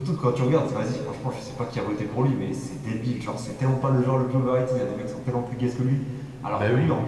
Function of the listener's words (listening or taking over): listening